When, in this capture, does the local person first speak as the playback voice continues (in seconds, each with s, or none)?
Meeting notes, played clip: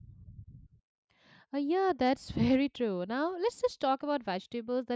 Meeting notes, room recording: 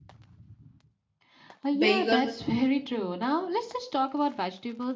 1.7 s